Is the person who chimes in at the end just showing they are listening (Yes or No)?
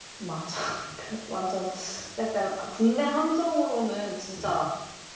Yes